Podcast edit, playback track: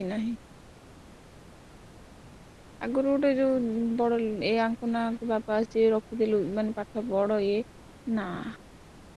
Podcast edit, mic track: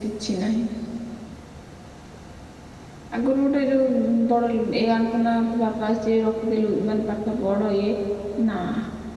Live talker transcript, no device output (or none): none